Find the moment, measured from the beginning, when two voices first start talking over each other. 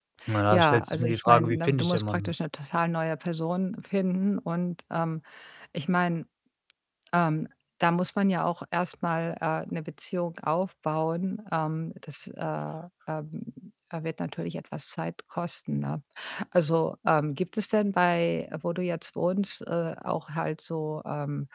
1 s

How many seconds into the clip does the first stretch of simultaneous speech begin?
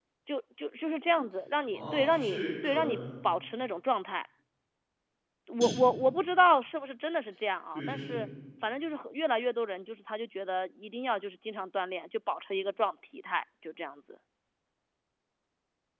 2 s

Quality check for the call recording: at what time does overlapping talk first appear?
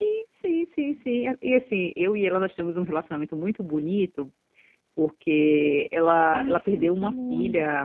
6 s

